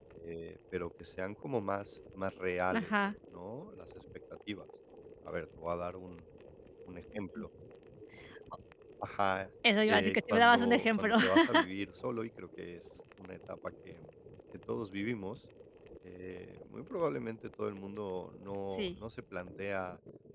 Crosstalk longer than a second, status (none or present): present